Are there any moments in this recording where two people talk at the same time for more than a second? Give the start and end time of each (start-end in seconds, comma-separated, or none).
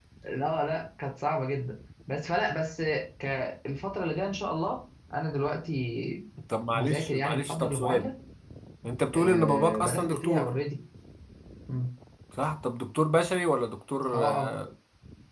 6.7-8.1, 9.1-10.5